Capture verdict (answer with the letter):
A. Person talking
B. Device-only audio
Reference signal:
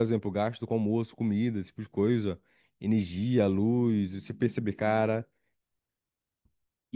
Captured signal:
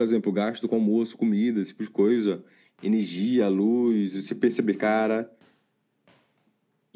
B